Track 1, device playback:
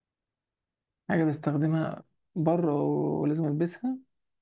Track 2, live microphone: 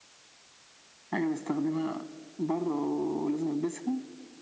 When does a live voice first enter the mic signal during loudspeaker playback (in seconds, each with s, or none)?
none